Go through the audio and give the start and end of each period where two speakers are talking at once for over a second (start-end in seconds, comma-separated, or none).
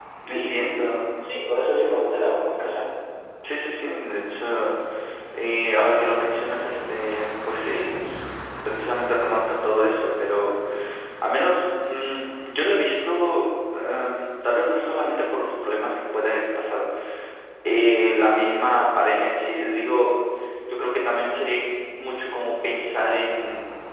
none